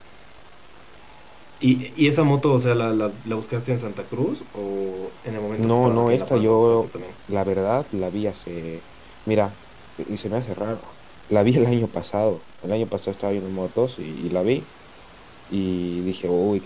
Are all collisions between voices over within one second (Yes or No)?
No